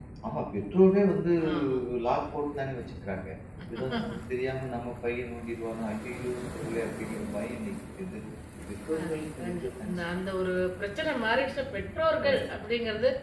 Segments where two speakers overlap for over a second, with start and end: 9.0-10.4

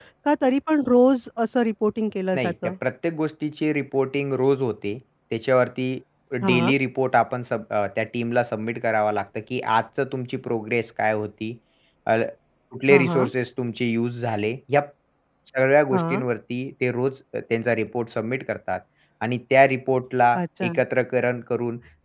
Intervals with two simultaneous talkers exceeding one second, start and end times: none

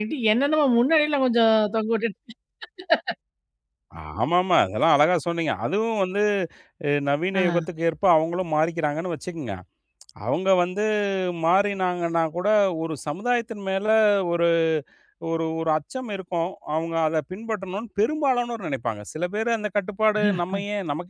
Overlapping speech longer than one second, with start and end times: none

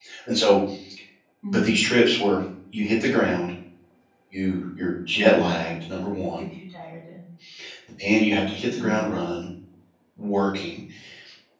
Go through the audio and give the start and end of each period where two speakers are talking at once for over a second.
none

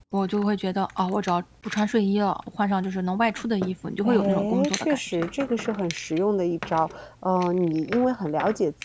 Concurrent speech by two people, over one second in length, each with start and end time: 4.0-5.2

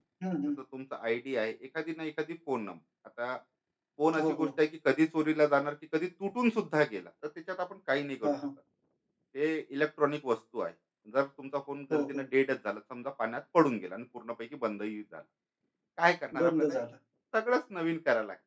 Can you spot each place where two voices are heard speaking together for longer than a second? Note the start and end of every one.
none

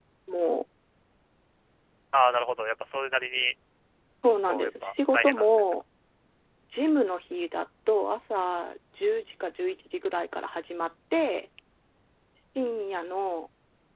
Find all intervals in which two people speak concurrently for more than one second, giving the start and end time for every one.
4.4-5.7

